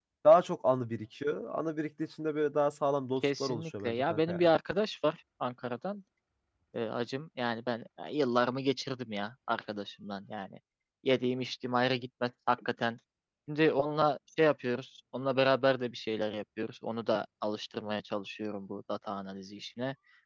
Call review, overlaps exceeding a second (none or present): present